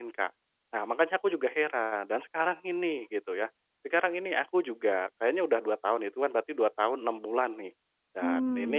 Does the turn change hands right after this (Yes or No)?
No